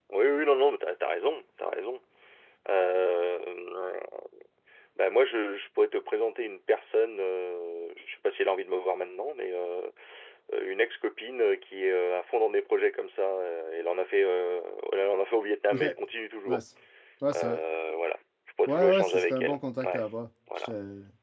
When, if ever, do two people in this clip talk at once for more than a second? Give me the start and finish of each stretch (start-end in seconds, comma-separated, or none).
18.7-20.0